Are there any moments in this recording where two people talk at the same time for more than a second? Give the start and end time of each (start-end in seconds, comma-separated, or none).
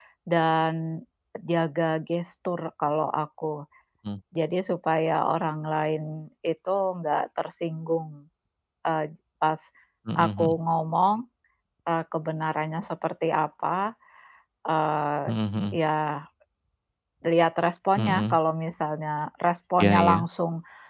none